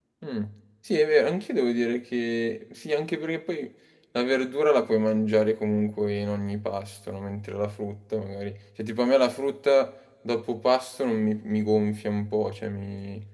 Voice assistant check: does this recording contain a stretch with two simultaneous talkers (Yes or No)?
No